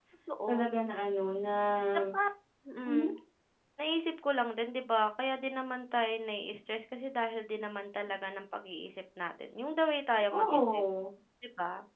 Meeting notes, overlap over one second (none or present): none